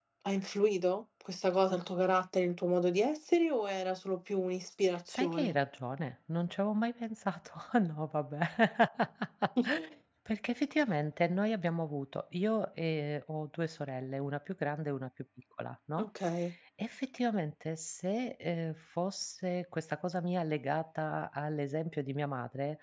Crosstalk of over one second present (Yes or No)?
No